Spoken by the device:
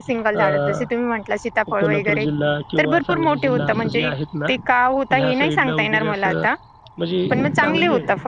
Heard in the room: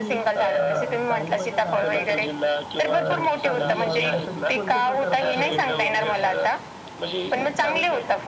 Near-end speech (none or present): present